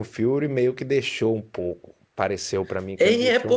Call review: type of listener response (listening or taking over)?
taking over